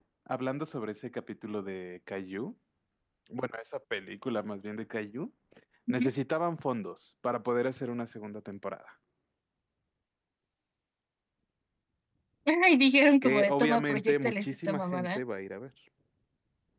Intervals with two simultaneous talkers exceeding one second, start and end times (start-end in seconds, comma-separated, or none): 13.2-15.2